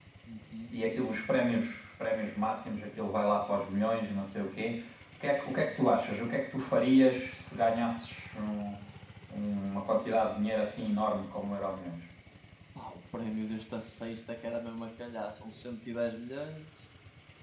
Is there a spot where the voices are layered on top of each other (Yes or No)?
No